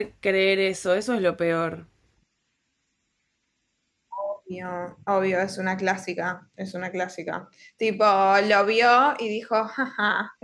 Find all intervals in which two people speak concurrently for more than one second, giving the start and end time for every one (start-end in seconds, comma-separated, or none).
none